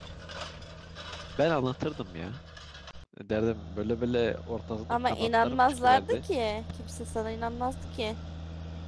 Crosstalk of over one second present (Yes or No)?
Yes